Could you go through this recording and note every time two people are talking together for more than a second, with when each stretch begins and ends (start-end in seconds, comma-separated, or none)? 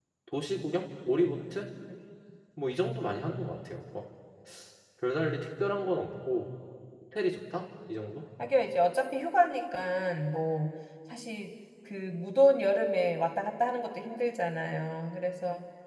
none